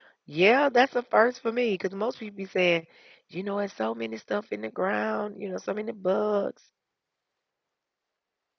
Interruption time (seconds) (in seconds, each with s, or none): none